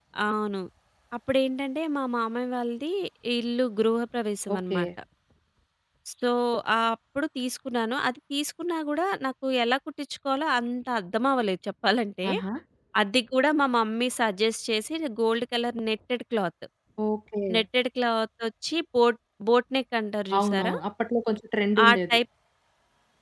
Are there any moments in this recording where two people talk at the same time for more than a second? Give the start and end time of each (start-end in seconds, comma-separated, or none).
none